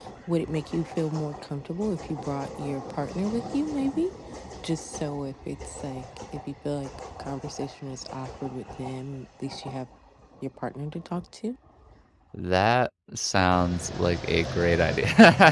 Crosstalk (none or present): none